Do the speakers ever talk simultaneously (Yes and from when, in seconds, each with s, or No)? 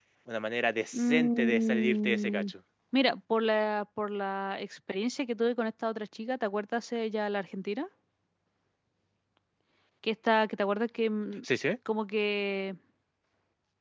Yes, from 0.9 s